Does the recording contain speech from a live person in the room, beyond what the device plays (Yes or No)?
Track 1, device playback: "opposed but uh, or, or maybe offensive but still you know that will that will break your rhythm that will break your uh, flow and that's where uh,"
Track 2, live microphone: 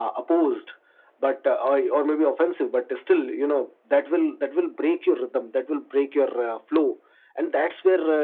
No